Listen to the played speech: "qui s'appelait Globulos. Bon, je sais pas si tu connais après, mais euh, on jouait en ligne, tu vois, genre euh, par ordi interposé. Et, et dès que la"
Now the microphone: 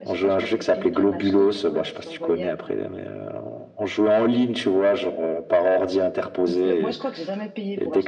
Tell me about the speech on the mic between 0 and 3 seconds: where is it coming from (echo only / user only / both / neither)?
both